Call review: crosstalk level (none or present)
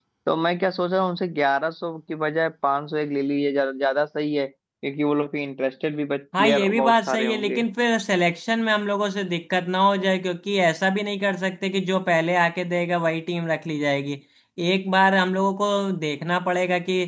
present